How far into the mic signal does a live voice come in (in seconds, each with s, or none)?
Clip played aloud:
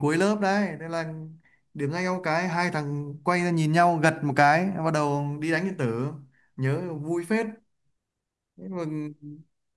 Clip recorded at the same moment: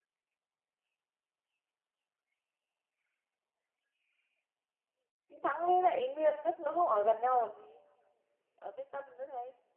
5.3 s